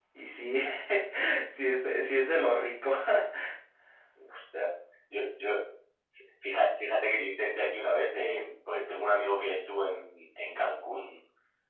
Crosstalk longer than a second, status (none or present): none